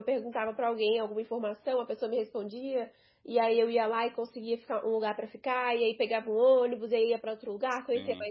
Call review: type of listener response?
listening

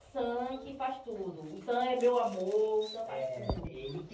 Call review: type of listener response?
taking over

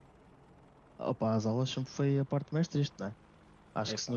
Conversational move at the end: listening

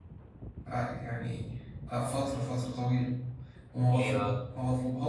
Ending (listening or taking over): listening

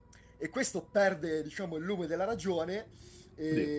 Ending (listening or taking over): listening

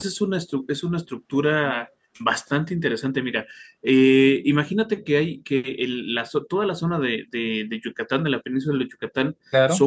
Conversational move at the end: listening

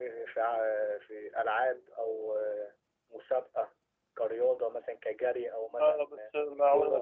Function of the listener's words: taking over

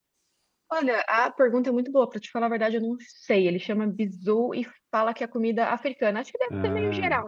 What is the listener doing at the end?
listening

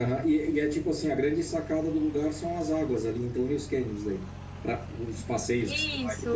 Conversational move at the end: taking over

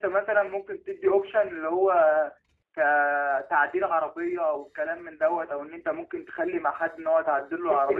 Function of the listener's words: taking over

